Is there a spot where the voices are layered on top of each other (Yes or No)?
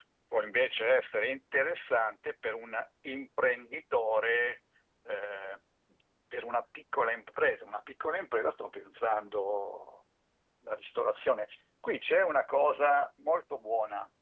No